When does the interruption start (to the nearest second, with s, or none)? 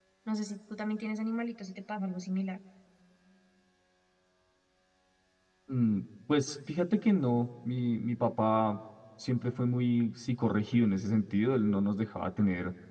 none